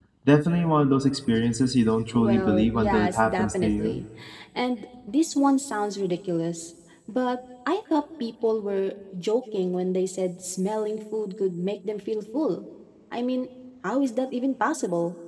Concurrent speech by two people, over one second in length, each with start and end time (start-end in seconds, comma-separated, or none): 2.1-4.0